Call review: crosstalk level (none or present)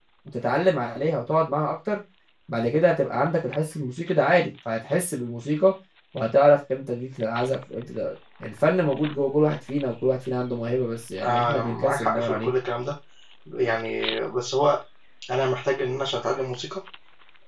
present